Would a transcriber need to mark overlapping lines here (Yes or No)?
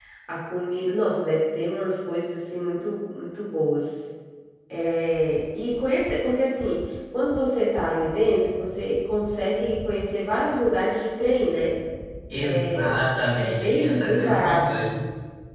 Yes